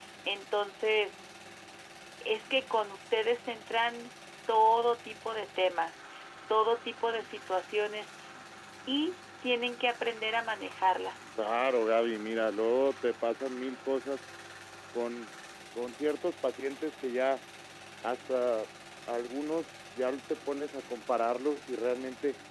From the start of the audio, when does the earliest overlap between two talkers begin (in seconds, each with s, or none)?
none